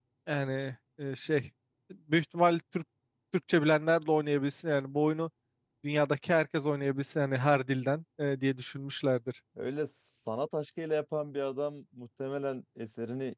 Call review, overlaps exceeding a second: none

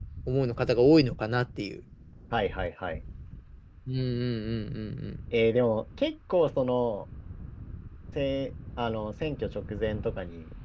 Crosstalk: none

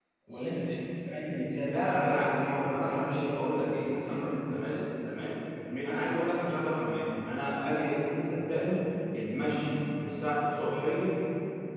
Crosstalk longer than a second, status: present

